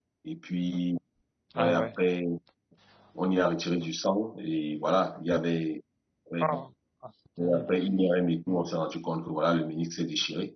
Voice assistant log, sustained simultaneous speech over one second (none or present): none